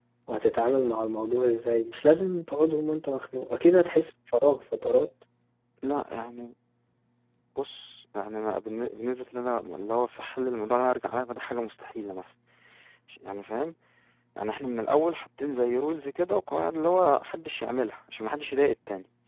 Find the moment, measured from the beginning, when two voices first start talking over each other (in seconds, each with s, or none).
none